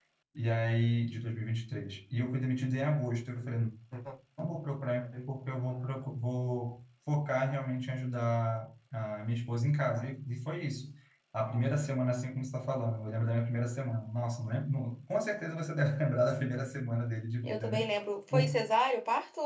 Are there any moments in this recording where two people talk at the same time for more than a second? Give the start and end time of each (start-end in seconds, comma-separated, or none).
none